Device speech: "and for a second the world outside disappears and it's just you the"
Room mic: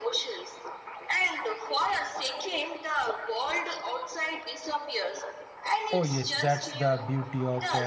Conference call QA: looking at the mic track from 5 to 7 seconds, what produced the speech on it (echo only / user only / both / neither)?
both